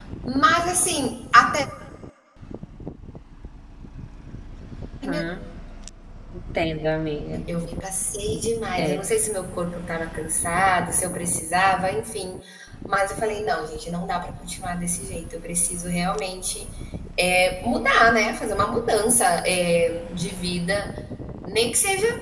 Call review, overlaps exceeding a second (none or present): none